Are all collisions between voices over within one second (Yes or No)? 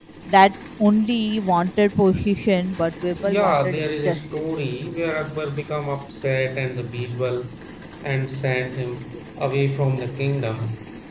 No